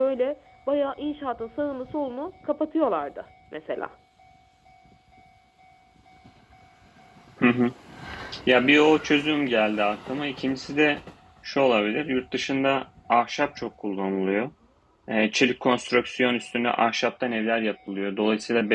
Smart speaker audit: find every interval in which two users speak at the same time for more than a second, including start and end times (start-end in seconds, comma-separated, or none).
none